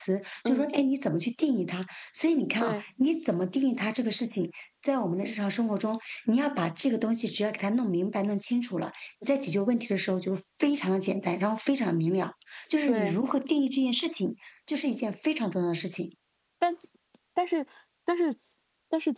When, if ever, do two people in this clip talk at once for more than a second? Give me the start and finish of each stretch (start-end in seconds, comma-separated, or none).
none